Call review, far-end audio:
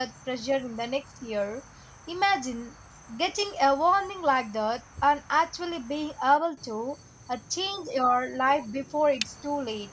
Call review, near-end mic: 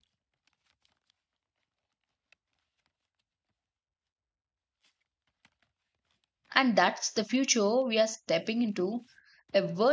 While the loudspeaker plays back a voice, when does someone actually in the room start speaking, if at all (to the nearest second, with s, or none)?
7 s